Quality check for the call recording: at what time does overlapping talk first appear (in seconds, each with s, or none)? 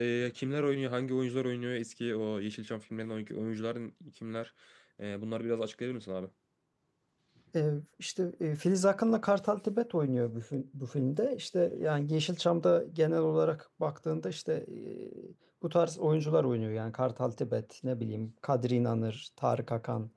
none